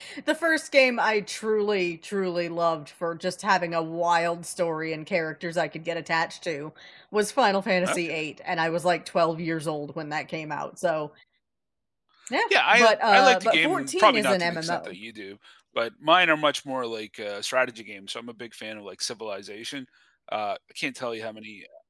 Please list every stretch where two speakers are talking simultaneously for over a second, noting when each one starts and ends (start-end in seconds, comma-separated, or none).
12.5-14.9